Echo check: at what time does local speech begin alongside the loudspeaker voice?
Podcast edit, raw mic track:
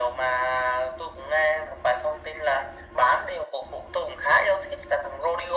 none

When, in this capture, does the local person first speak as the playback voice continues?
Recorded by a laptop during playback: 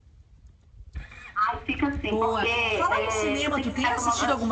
2.0 s

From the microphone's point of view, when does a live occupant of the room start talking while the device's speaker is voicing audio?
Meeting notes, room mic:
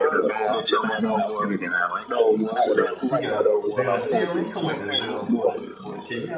3.1 s

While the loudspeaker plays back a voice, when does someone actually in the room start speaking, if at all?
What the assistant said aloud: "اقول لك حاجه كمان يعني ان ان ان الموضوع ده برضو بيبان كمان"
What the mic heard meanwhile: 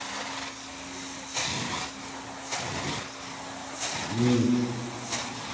4.1 s

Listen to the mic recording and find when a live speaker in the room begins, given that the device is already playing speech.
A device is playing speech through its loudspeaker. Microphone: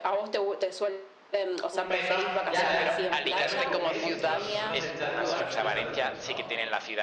1.7 s

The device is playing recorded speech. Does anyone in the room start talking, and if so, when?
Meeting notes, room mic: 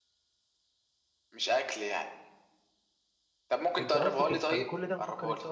3.8 s

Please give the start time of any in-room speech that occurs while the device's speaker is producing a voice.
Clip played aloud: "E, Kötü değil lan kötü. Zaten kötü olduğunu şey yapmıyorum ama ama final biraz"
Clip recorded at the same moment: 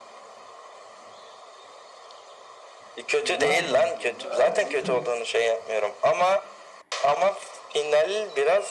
3.2 s

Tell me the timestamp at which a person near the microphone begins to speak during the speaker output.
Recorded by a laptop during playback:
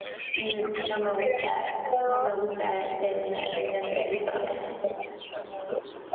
0.3 s

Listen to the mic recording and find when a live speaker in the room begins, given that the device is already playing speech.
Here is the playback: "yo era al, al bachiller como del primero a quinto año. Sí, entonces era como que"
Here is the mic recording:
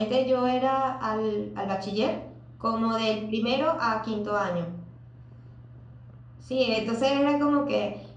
none

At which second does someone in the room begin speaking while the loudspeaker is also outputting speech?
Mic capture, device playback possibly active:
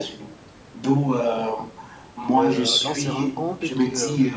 2.4 s

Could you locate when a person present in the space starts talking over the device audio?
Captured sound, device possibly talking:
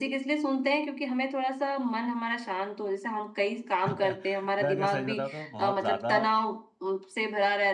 3.9 s

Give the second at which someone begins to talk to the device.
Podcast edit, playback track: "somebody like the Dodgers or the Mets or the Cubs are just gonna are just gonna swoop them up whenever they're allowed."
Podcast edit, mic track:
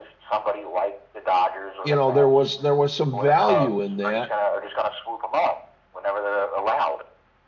1.8 s

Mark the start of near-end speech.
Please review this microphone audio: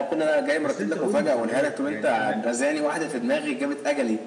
0.6 s

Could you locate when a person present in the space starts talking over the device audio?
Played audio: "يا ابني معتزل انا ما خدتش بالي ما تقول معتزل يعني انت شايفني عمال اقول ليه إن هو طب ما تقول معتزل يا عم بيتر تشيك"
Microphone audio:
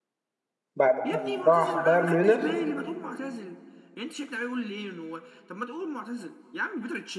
0.8 s

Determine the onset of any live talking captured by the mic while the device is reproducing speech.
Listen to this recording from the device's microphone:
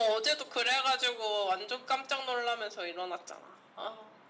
none

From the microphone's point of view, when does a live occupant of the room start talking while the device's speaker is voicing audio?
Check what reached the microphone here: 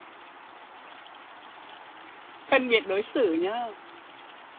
2.5 s

